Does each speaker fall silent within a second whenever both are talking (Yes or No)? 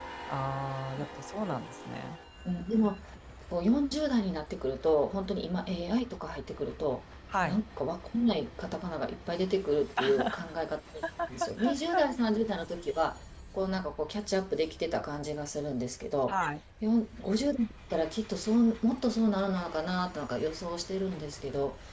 Yes